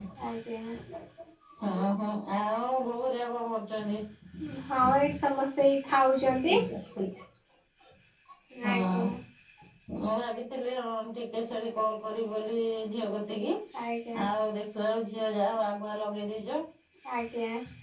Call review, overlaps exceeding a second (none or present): none